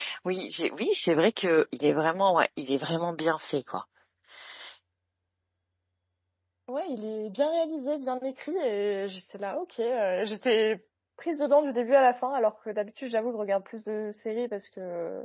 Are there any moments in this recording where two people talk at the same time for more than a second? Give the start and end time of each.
none

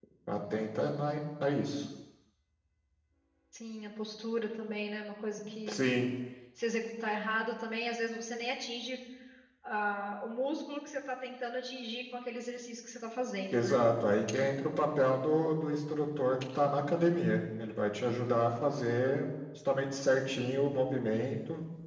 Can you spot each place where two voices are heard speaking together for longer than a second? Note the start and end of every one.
none

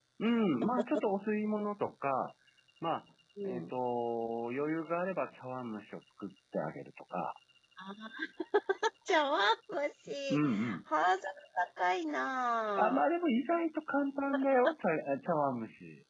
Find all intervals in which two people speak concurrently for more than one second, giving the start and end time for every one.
none

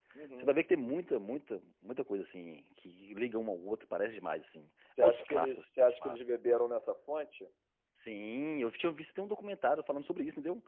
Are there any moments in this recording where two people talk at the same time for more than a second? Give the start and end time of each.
5.0-6.2

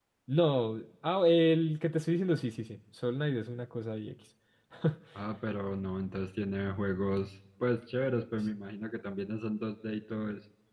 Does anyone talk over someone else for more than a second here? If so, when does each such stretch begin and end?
none

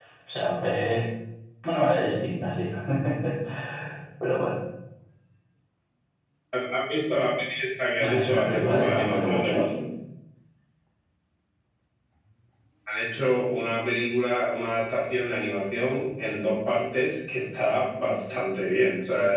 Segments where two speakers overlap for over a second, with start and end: 8.0-9.7

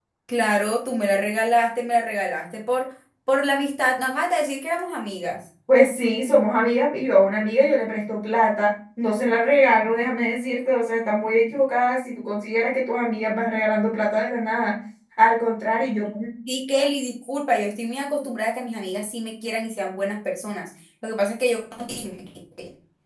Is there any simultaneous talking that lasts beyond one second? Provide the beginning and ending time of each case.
none

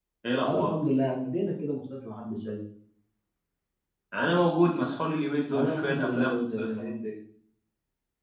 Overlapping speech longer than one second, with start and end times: 5.5-6.9

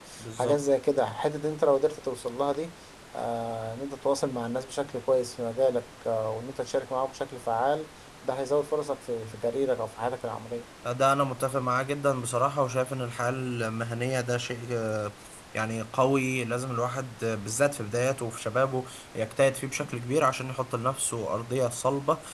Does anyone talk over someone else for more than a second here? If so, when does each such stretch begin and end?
none

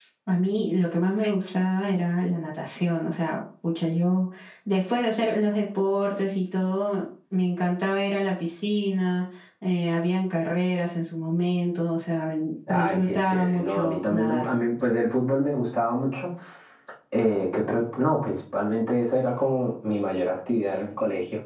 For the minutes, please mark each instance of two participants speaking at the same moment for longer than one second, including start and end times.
12.7-14.4

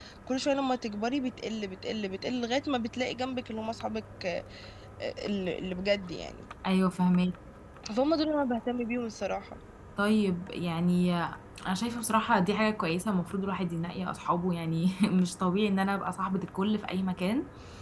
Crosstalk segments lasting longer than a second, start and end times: none

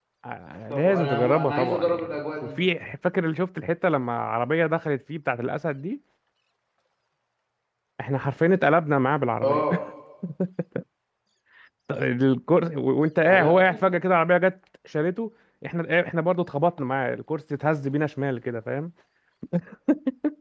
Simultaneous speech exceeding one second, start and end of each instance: 0.7-2.5

